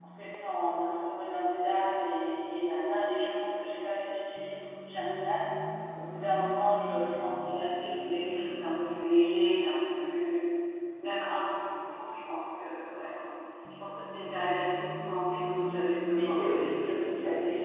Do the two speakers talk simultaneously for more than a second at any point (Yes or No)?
Yes